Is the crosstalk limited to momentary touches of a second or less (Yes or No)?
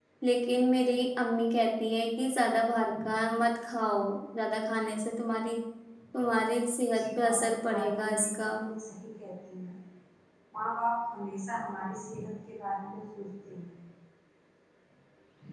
No